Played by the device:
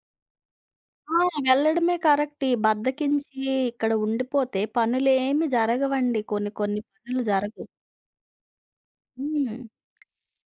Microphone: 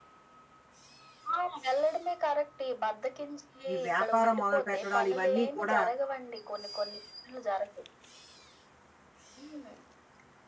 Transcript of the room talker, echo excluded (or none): ఈ వ్యాపారం మొదలుపెట్టడాలు ఇవన్నీ కూడా